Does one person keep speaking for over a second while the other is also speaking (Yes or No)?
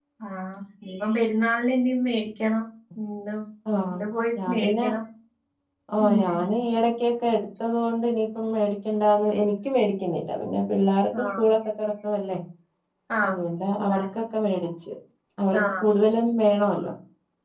No